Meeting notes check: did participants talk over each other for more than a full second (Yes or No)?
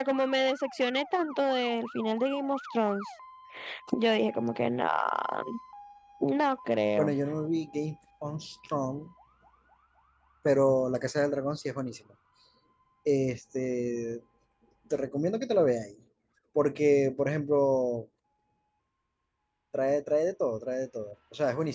No